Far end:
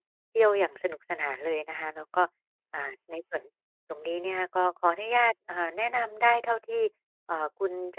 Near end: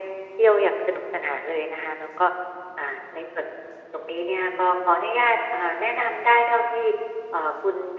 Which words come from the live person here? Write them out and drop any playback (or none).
none